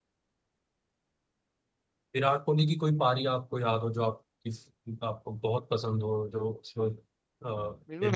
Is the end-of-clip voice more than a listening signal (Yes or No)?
Yes